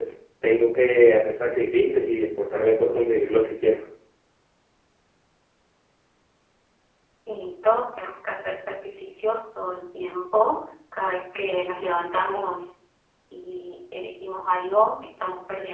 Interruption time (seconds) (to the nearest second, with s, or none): none